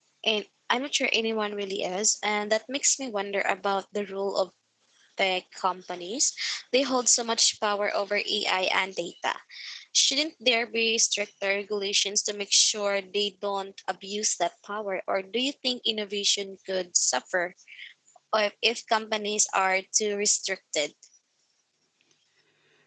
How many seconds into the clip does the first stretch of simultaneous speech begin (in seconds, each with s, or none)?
none